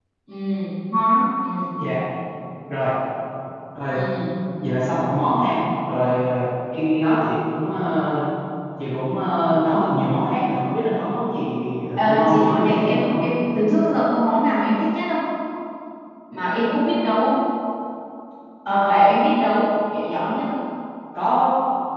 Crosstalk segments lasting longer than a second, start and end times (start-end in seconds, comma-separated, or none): 12.0-13.2